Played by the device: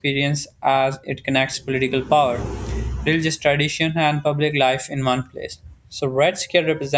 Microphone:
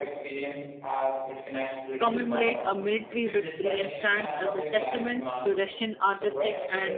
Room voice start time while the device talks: 2 s

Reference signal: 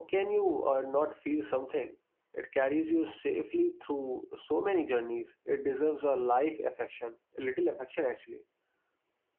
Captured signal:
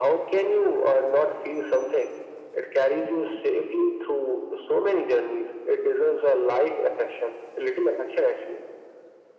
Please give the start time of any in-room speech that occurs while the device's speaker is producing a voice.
none

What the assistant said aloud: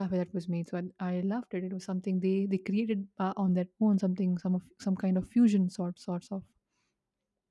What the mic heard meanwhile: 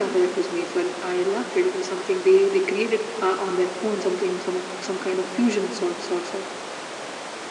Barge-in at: none

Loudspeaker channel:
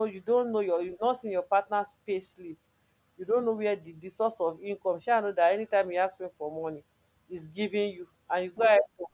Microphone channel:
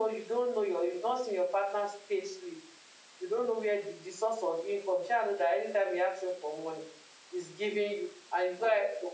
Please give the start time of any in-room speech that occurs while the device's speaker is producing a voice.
none

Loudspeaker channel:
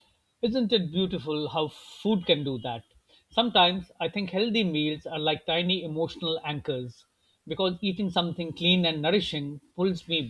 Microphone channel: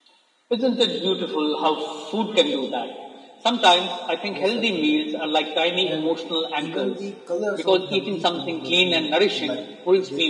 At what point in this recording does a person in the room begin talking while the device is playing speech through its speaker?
4 s

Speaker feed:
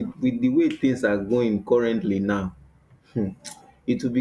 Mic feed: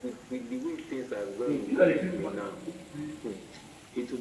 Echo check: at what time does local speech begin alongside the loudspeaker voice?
1 s

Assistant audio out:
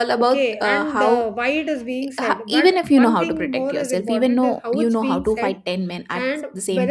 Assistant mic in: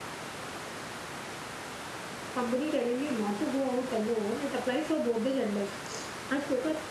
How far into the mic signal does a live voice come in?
2 s

